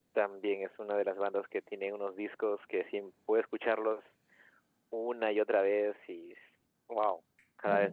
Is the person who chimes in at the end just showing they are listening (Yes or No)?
No